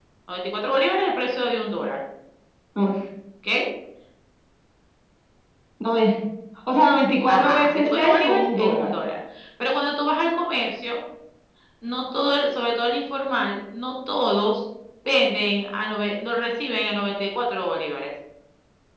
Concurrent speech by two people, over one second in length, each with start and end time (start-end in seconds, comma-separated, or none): 7.3-8.9